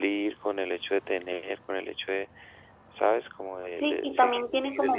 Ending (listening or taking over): taking over